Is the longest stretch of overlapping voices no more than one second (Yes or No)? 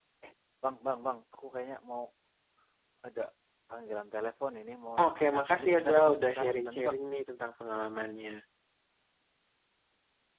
No